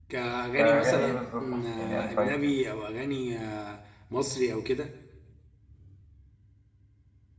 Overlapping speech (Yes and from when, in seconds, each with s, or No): Yes, from 0.6 s